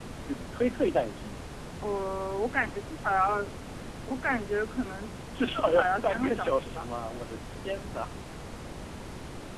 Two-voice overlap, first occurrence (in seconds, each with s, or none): 5.6 s